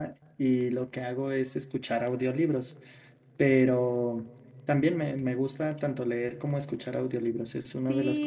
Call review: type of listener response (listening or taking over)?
taking over